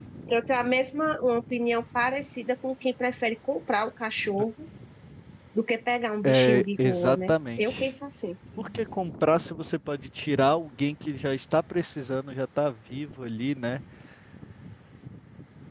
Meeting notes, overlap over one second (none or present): present